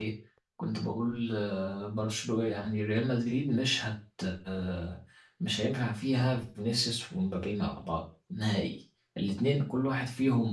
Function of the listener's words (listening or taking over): listening